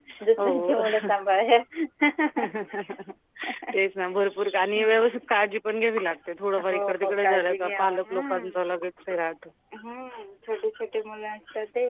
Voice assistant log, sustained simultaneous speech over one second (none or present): present